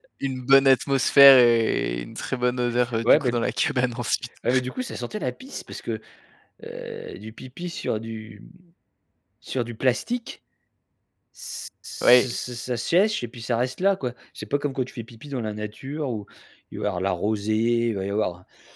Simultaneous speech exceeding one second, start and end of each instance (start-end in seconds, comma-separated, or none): none